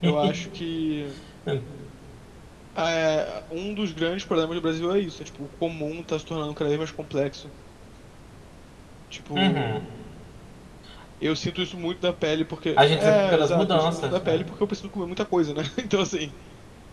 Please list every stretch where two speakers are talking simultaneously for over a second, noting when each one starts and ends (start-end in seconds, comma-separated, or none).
12.8-14.5